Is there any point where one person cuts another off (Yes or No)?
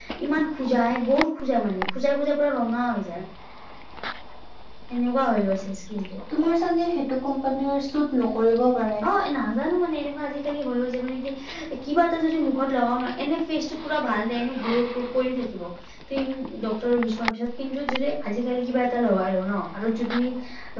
No